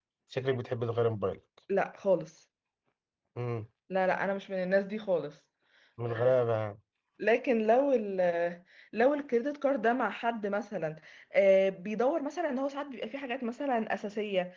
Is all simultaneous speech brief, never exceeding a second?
Yes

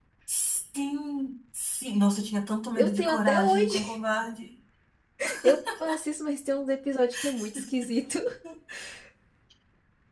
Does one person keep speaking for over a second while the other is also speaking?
Yes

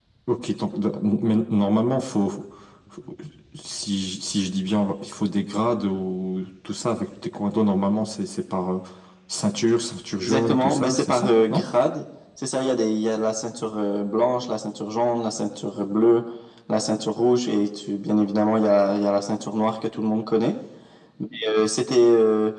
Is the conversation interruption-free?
No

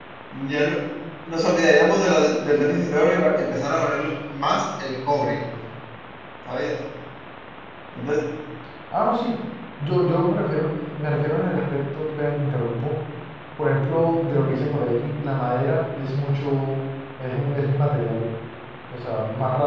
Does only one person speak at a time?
Yes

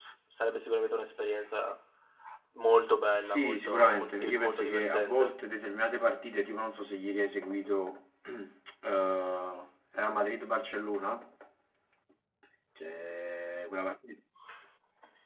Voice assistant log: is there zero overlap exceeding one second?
No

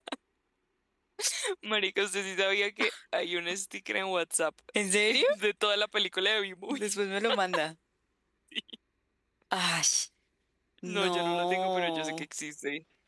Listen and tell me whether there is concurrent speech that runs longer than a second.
Yes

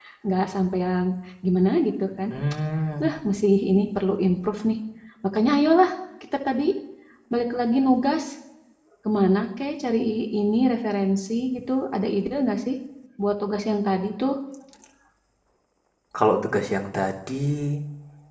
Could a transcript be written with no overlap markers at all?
Yes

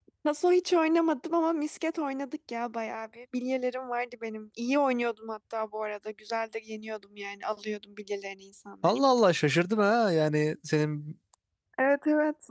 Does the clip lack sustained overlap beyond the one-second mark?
Yes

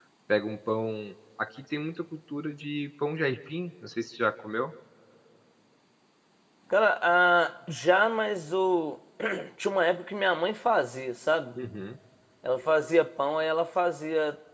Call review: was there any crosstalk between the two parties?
No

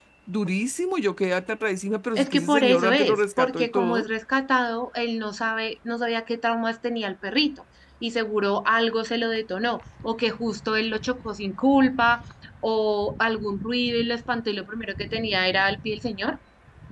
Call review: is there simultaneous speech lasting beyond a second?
Yes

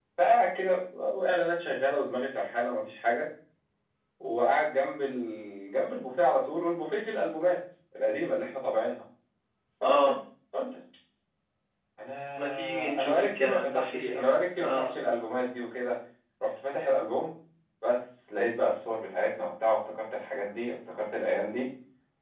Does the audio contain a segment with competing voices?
Yes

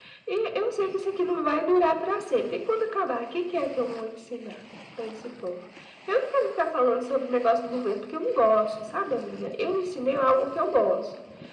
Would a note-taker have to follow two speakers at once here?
No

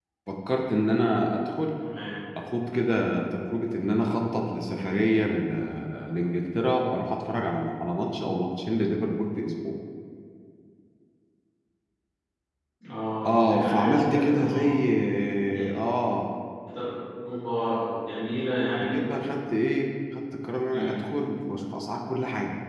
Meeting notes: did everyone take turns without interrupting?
No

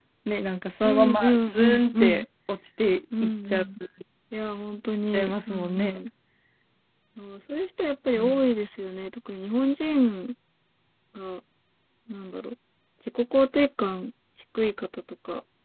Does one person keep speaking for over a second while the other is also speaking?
Yes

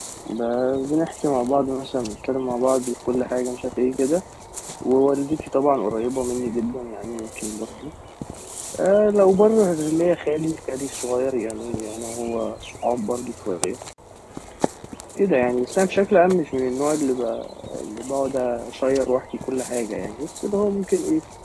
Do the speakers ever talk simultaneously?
No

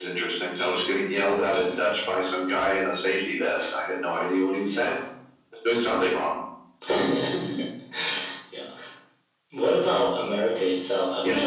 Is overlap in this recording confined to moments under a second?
Yes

